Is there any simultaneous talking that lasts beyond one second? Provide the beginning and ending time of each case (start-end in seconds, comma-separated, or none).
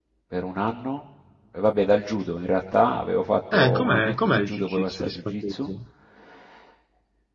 3.5-5.7